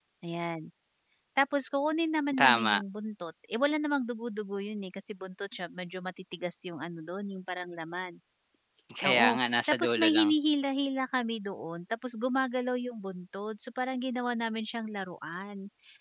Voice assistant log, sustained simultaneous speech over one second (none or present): present